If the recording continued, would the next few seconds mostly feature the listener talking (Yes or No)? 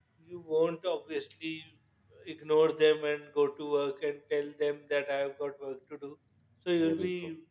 No